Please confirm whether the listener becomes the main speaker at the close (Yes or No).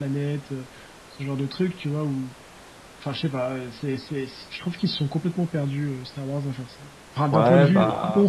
Yes